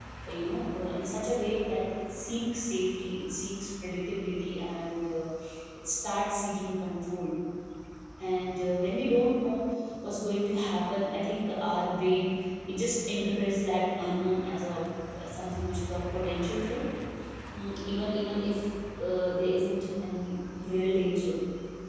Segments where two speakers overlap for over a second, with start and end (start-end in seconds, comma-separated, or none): none